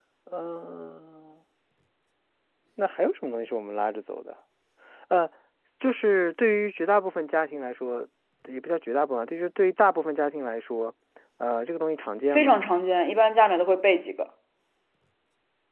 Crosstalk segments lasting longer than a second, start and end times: none

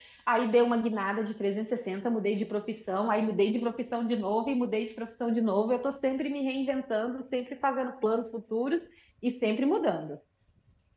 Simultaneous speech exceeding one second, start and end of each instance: none

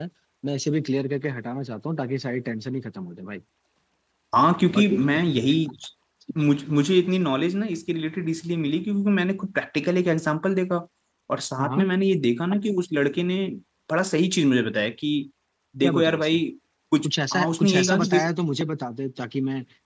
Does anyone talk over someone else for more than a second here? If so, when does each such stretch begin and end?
17.0-18.3

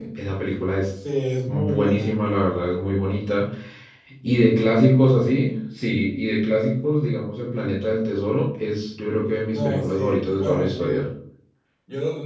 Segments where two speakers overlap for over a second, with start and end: 9.5-11.0

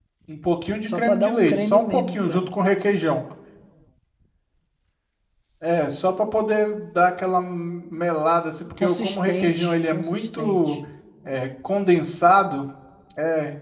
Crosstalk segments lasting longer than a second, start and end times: 0.9-2.5, 8.8-10.8

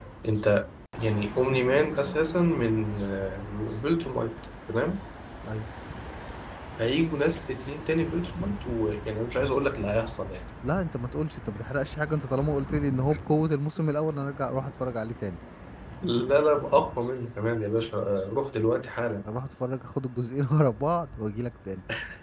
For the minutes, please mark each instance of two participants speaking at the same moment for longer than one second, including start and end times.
none

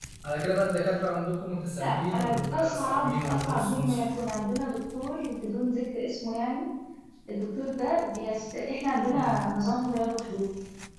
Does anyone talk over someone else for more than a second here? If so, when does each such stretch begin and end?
1.8-4.0

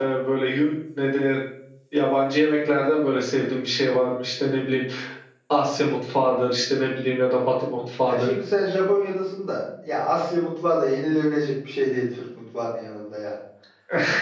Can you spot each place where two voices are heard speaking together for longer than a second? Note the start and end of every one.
none

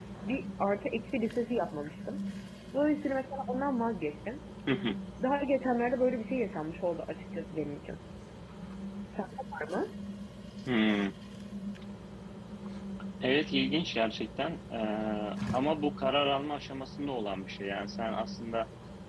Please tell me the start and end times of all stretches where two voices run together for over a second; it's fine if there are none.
none

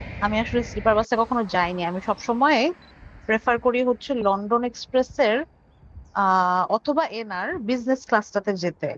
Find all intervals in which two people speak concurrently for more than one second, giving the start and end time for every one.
none

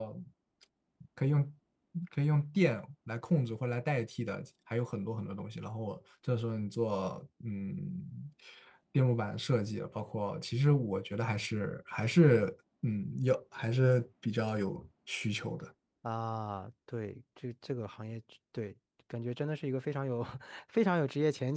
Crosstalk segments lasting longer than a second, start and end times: none

